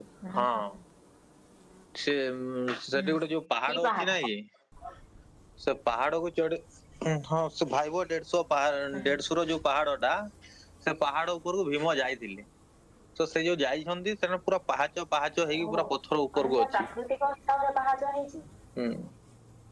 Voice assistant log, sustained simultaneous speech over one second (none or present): none